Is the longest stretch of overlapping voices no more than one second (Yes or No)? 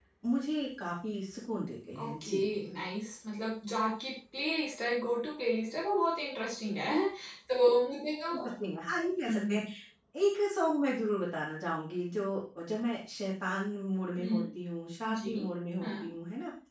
Yes